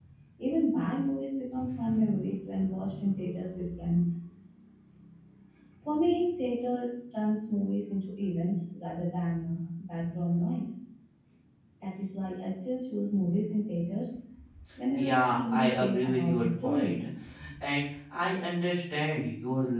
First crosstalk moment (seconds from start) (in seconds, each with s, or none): 15.0 s